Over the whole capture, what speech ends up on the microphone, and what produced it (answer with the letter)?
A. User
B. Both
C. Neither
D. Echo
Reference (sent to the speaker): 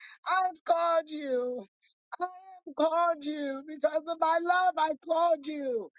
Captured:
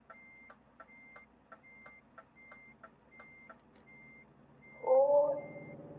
A